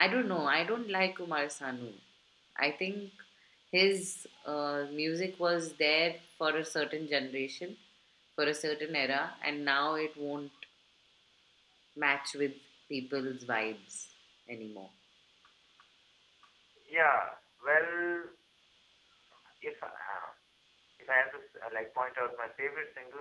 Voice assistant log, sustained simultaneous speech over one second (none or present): none